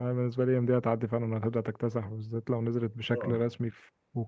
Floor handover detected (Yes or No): No